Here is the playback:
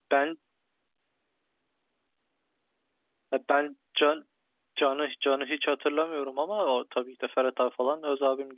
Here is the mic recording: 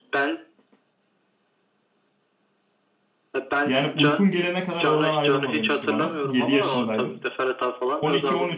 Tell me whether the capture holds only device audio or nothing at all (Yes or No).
No